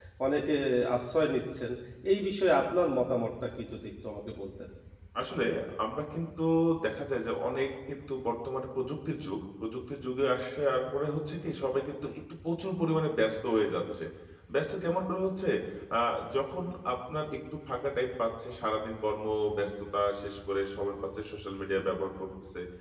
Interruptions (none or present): none